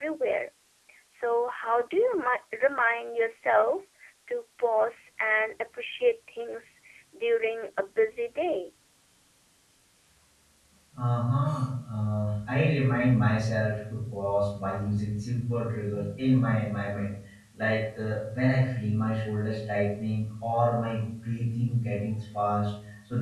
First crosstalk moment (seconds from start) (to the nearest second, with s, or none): none